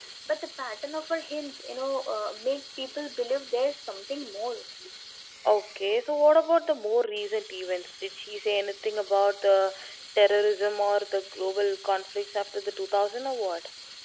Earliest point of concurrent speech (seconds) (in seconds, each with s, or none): none